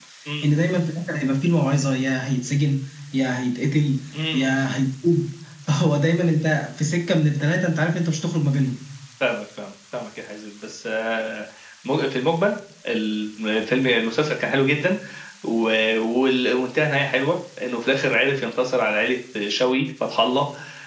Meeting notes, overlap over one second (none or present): none